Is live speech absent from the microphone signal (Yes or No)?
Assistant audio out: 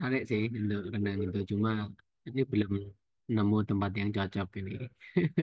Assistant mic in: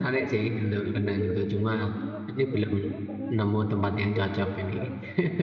No